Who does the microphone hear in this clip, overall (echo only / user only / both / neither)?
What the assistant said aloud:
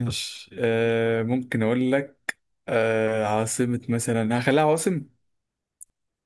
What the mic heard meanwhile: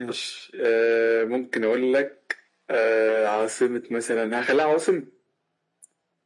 echo only